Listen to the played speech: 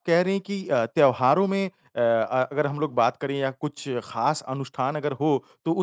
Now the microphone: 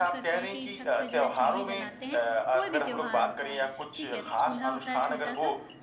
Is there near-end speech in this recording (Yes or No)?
Yes